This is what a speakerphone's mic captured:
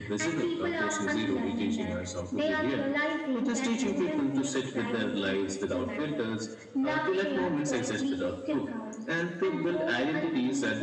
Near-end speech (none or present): none